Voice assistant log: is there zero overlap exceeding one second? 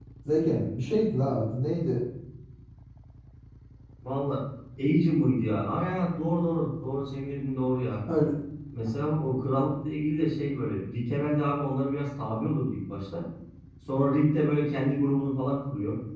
Yes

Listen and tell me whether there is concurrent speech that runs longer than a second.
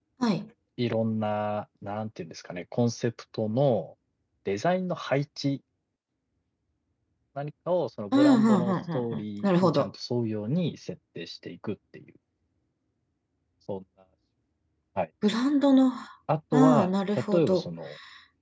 Yes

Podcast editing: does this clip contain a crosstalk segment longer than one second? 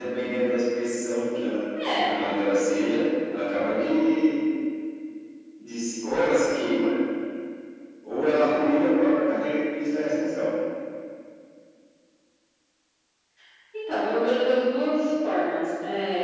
No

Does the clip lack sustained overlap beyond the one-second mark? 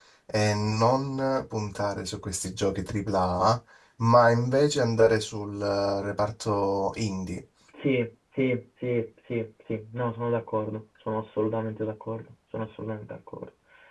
Yes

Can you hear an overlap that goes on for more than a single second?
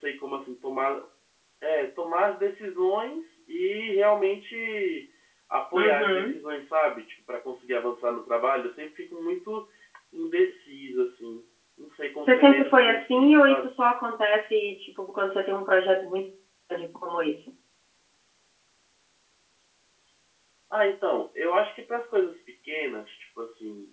Yes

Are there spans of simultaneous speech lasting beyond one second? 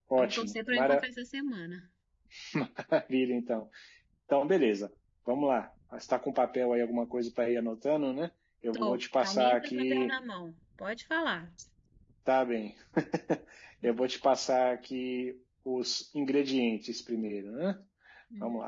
Yes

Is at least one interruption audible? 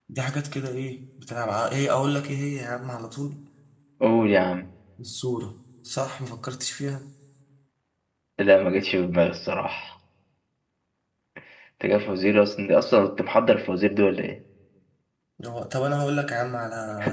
No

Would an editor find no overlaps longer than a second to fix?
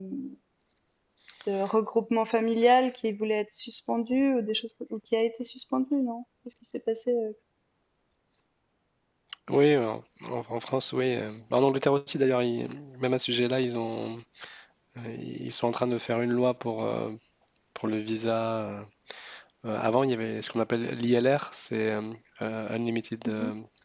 Yes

